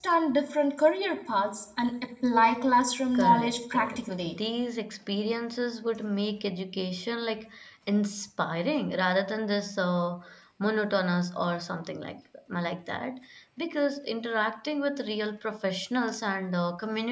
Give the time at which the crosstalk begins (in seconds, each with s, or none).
3.1 s